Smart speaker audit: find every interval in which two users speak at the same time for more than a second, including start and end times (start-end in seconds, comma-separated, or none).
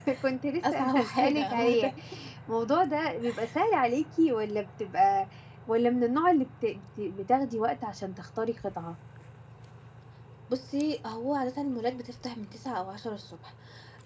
0.7-1.9